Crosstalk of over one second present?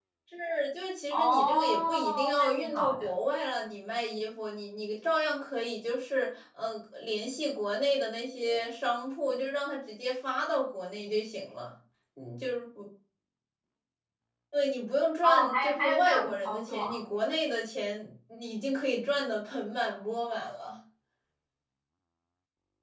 Yes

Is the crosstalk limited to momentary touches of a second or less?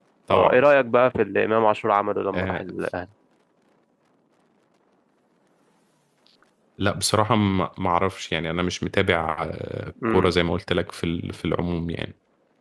Yes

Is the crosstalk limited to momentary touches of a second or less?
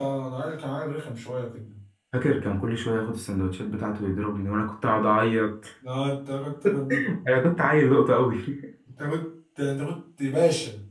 Yes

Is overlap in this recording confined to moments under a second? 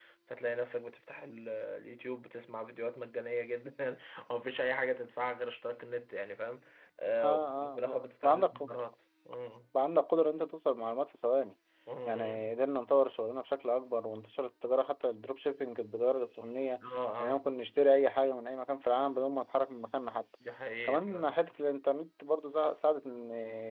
No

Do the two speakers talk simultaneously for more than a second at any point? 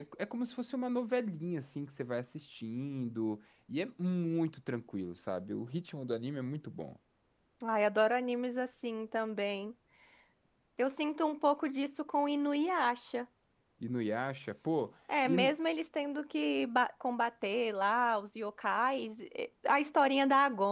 No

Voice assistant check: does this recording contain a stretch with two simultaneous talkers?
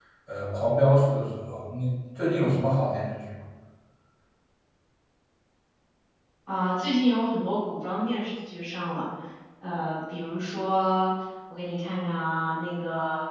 No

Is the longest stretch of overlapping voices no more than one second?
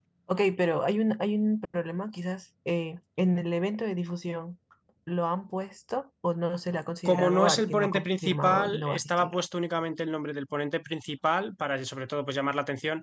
No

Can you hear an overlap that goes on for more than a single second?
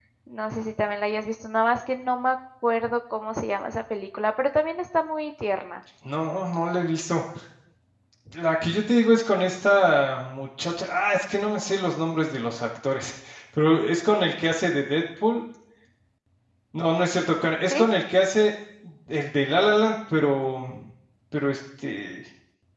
No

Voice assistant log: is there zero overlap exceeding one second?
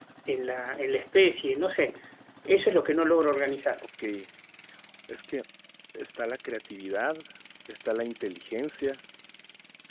Yes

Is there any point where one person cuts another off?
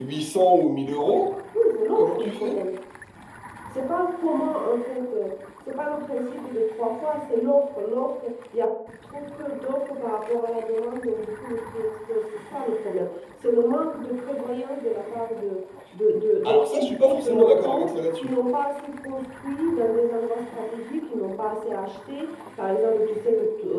Yes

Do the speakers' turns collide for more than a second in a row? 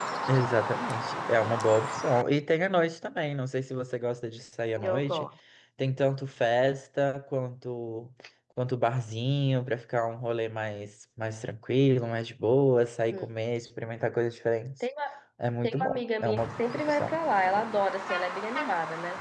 Yes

